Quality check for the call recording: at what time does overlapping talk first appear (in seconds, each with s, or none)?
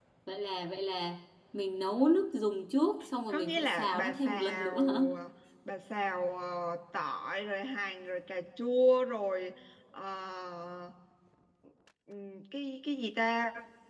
3.3 s